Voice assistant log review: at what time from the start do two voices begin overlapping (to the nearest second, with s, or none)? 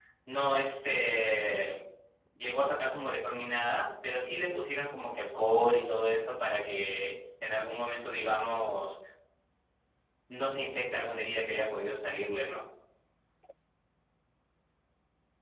none